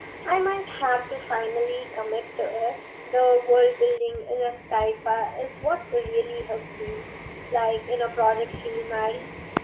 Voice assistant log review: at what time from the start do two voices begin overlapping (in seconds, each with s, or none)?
none